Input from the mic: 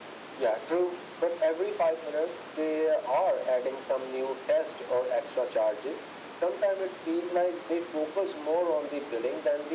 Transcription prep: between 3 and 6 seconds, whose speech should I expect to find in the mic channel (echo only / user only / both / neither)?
echo only